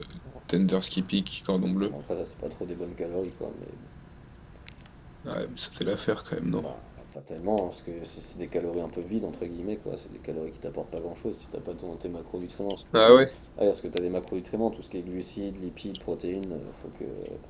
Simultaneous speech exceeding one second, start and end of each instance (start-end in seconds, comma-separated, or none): none